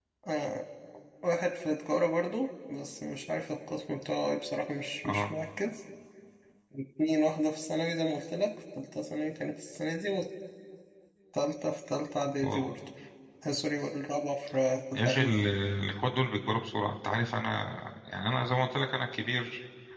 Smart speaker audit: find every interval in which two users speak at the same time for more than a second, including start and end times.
none

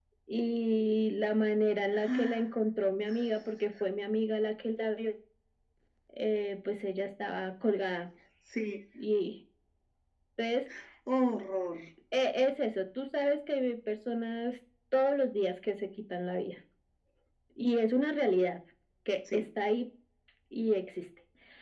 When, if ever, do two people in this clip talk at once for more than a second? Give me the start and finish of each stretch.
none

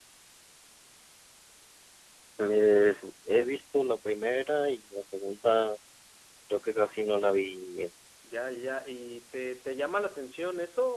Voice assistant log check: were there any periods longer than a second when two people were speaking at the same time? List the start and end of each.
none

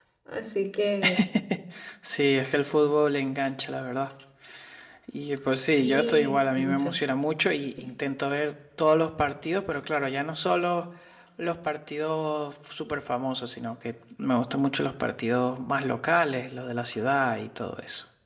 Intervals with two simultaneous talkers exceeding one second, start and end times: 5.7-6.9

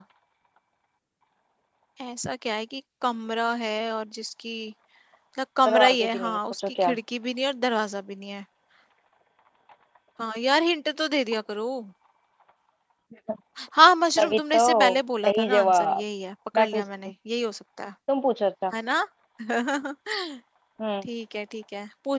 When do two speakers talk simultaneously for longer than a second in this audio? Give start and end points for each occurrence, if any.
5.7-6.9, 14.2-16.0

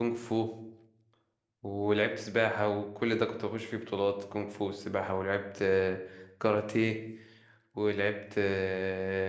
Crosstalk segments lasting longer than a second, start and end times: none

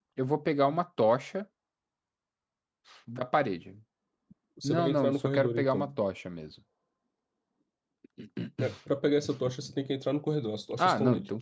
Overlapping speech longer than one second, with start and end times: 4.6-5.9

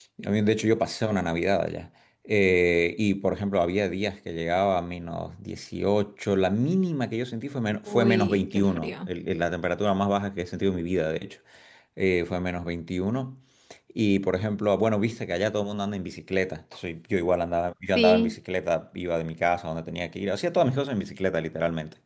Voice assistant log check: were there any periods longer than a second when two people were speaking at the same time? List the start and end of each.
7.9-9.1

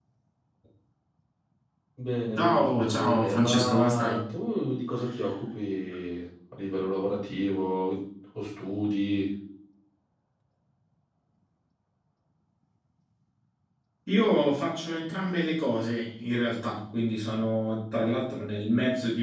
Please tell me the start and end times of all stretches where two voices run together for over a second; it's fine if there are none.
2.4-4.2

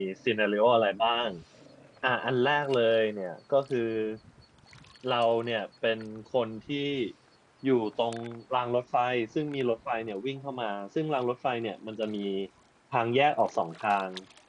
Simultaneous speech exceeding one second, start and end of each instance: none

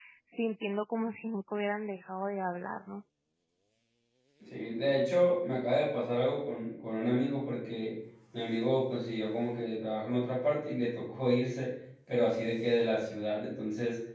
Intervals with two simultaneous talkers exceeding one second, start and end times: none

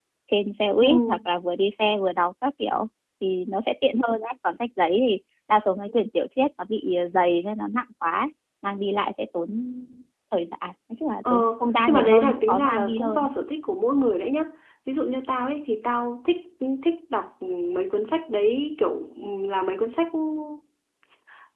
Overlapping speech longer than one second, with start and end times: 11.9-13.3

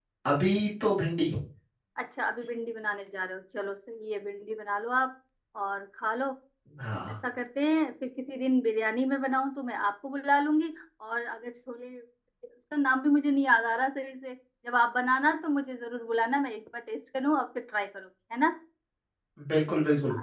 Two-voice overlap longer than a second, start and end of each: none

